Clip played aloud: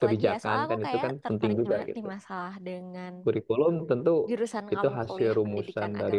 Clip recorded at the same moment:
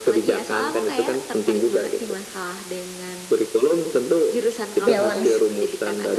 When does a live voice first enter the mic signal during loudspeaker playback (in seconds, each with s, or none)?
4.8 s